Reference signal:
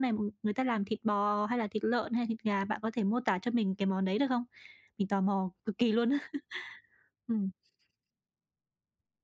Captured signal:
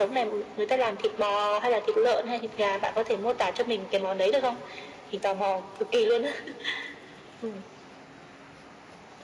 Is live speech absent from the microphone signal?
Yes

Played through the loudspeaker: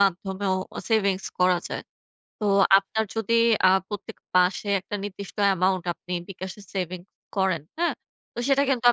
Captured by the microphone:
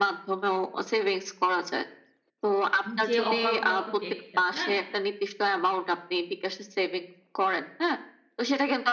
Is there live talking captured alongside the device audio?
Yes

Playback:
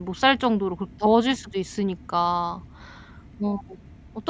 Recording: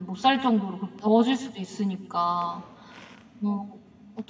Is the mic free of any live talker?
Yes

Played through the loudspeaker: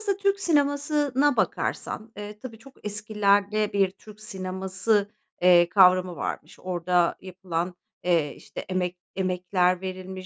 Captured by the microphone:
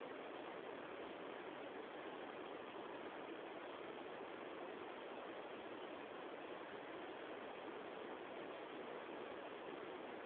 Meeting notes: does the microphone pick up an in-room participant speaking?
No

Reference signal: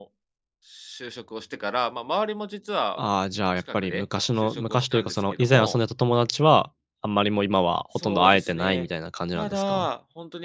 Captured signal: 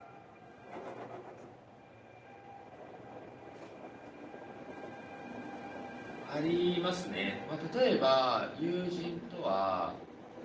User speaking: Yes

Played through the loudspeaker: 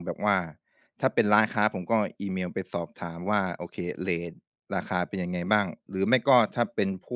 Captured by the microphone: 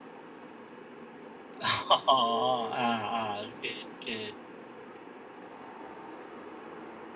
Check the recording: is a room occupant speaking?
Yes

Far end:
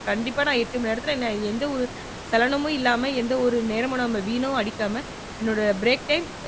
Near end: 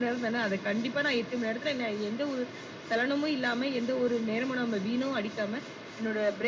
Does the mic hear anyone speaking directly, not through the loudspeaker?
No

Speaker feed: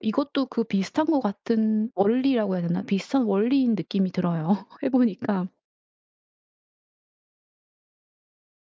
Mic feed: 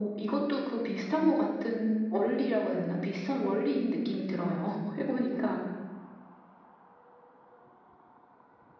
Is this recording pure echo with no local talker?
Yes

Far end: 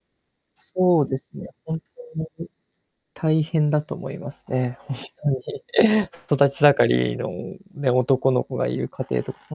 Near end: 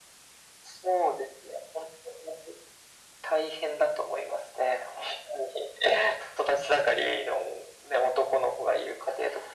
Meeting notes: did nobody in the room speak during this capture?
Yes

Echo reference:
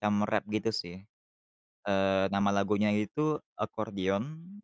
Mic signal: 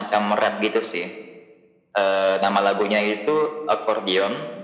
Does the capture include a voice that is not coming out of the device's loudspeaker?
No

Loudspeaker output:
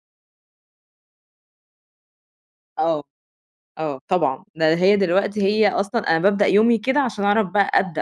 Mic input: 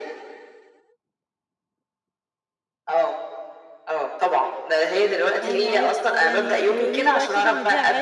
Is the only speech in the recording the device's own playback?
No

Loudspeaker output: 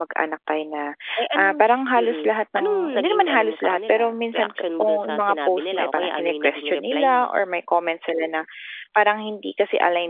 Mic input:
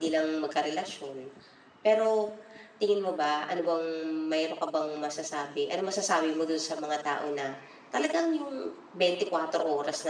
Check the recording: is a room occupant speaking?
Yes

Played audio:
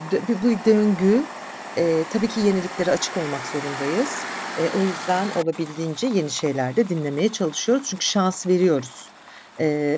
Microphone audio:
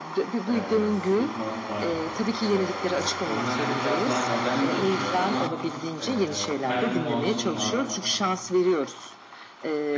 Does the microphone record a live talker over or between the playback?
Yes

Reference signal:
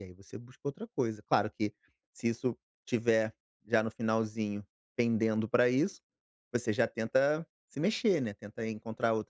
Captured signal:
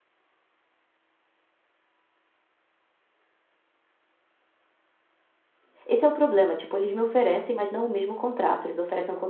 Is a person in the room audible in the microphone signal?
Yes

